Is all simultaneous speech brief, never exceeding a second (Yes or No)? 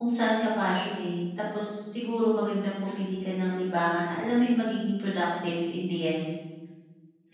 No